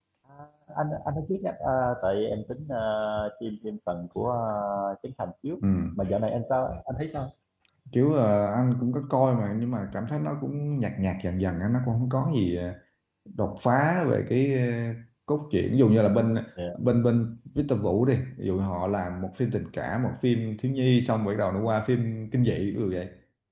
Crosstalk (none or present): none